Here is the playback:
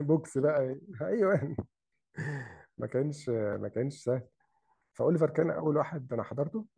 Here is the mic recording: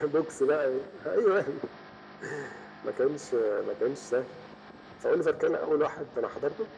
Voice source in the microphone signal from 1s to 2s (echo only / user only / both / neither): echo only